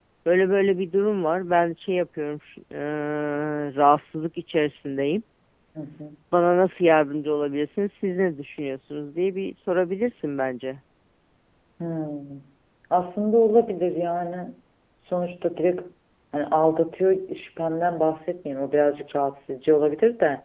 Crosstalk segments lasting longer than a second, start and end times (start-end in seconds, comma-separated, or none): none